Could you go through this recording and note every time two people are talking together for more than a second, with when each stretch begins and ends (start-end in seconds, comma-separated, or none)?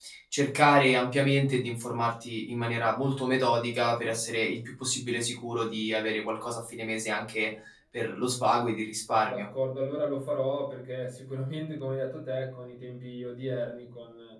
none